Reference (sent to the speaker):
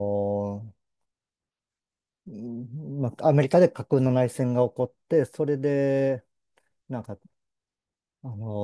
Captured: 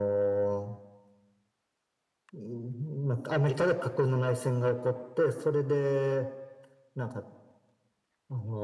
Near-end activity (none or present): none